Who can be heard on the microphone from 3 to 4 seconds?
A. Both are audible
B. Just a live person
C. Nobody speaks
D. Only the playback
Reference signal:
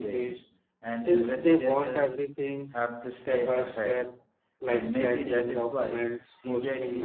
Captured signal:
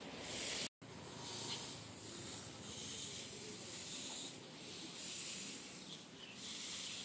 C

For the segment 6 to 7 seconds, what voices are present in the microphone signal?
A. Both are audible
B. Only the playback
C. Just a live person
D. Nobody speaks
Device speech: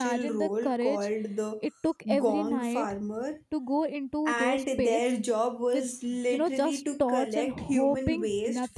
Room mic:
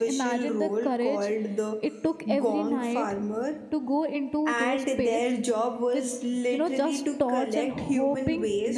B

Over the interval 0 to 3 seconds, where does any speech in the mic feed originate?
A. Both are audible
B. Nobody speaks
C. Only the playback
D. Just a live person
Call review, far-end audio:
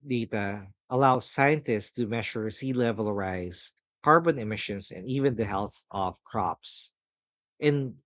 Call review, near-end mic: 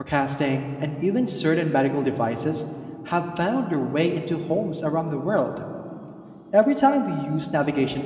D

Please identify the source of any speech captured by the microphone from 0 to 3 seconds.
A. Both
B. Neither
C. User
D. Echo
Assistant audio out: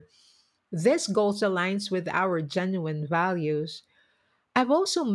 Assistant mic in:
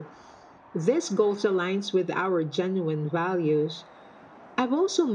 D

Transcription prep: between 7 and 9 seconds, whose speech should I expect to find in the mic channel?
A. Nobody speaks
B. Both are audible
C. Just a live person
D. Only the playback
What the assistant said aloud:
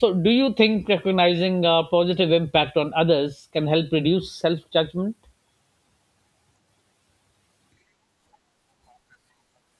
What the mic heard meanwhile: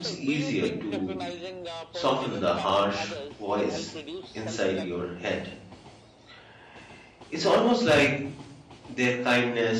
C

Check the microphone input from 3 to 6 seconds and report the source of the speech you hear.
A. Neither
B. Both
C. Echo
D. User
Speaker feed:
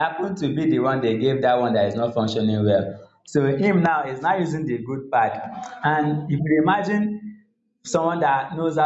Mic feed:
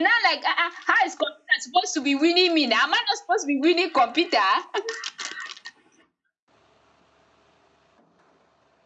D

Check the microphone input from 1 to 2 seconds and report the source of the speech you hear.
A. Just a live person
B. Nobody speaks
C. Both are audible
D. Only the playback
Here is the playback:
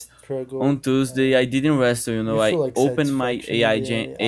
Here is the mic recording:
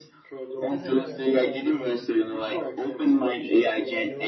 C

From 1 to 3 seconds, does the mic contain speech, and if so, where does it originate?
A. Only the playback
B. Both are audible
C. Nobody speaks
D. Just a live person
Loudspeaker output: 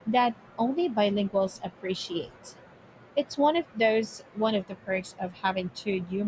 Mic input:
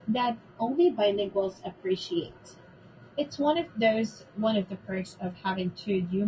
A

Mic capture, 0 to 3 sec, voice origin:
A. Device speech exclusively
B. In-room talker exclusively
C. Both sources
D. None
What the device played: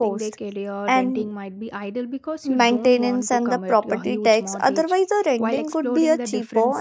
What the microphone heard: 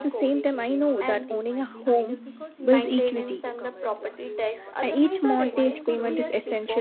C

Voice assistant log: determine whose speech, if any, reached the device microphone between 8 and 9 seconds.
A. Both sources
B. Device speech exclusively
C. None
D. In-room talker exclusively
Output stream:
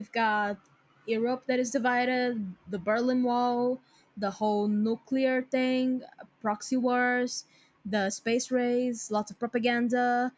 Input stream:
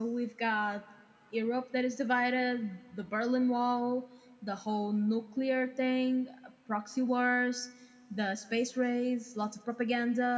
B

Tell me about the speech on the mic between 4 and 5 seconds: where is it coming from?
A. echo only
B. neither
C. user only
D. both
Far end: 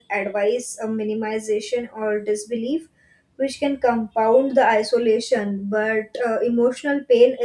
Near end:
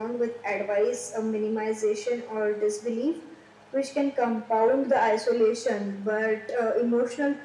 A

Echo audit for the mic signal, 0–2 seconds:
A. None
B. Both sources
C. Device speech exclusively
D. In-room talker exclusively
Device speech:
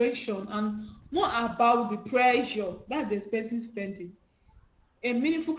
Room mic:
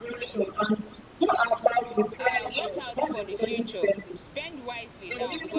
C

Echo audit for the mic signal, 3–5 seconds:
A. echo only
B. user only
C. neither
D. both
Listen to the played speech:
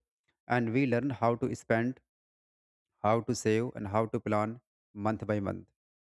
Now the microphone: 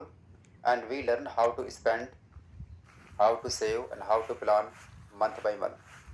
A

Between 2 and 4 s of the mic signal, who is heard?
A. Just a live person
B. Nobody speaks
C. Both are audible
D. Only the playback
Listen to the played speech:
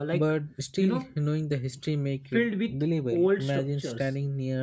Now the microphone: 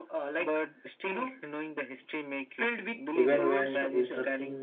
C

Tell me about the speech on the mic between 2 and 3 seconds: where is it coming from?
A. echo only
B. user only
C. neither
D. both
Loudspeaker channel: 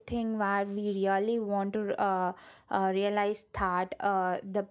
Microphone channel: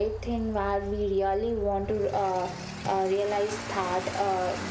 A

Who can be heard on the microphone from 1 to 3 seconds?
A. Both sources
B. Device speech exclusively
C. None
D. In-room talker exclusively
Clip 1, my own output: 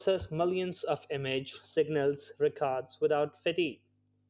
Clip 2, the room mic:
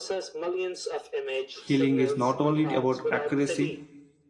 A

